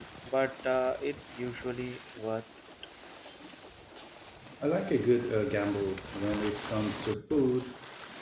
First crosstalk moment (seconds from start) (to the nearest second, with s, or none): none